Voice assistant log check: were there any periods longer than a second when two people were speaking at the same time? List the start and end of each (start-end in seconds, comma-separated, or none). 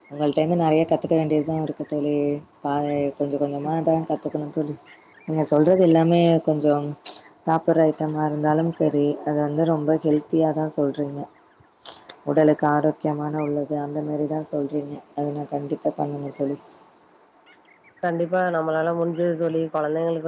none